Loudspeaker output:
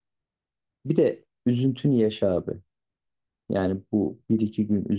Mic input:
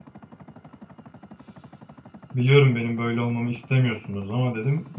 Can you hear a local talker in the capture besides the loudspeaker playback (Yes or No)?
Yes